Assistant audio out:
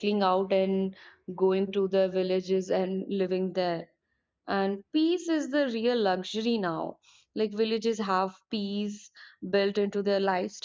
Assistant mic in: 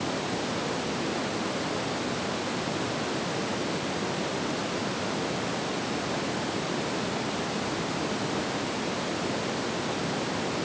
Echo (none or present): none